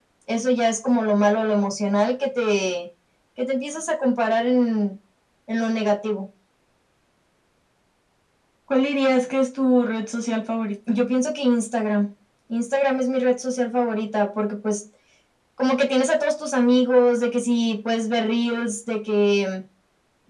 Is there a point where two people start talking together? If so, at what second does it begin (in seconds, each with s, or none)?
none